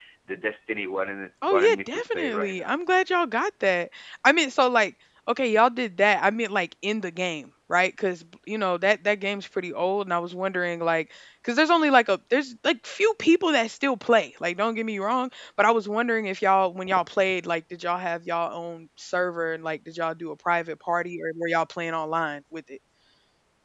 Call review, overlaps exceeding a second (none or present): present